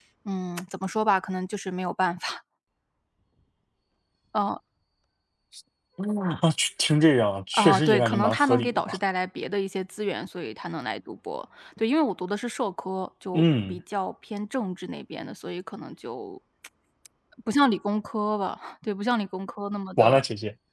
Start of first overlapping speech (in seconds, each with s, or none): 7.5 s